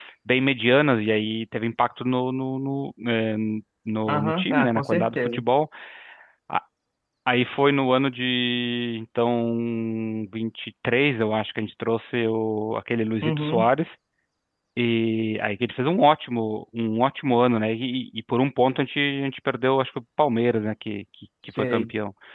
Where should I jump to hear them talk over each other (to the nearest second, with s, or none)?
4 s